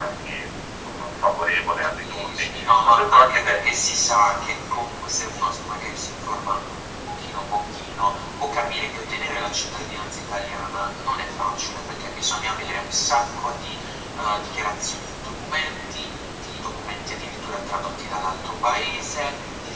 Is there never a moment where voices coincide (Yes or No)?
No